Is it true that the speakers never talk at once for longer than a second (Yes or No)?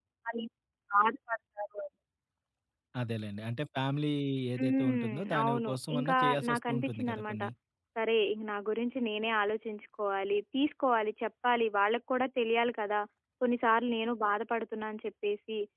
No